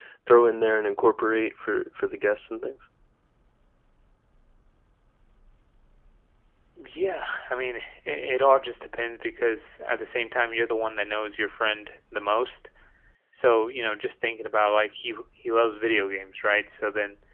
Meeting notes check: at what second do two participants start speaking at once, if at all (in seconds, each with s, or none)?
none